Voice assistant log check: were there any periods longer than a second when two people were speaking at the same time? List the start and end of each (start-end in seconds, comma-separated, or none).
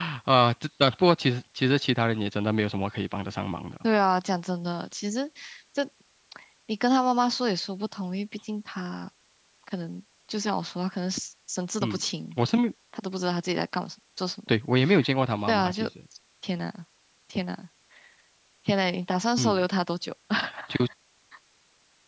none